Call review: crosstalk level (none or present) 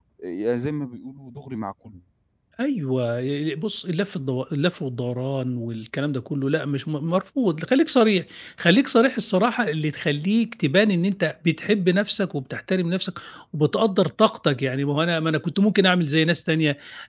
none